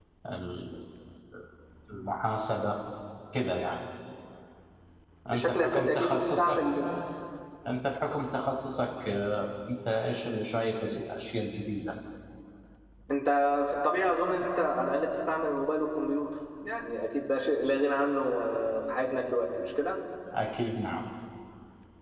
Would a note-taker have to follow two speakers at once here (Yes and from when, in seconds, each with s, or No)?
Yes, from 5.3 s